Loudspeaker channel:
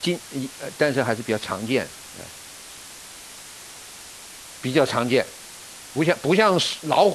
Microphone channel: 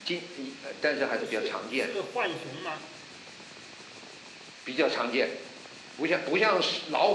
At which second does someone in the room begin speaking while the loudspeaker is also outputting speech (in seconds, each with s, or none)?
1.1 s